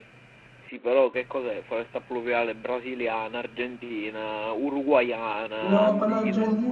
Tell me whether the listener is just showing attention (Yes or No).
No